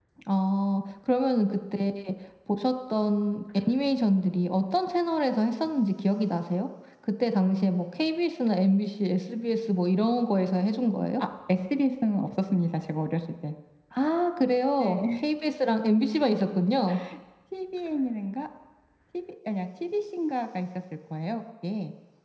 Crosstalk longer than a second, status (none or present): none